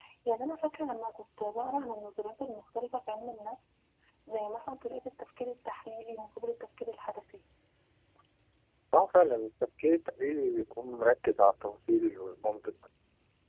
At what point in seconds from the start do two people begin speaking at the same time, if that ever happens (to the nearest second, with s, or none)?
none